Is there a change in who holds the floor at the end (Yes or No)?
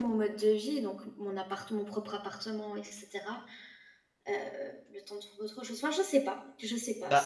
Yes